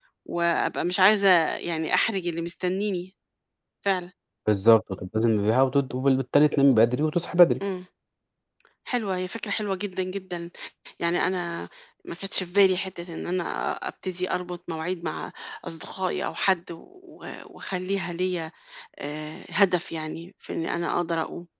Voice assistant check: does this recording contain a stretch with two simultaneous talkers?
No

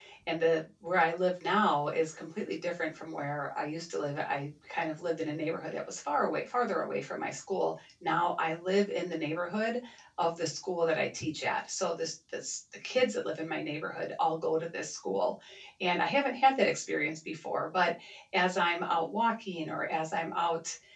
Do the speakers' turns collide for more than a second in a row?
No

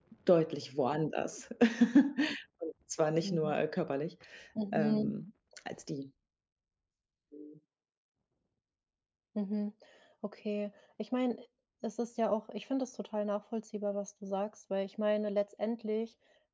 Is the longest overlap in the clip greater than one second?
No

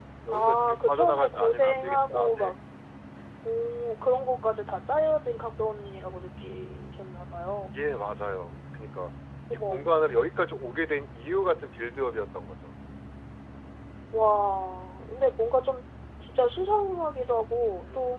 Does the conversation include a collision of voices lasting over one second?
Yes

